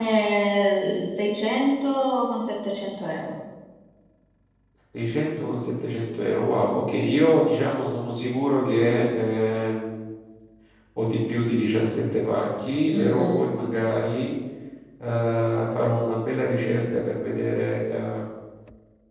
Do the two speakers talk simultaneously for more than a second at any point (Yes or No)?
No